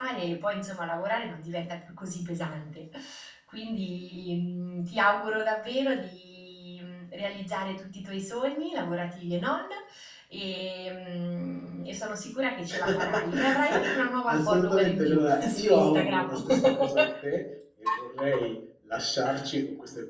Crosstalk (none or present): present